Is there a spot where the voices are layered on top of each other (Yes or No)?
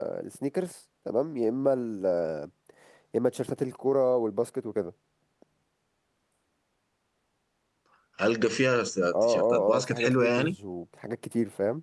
Yes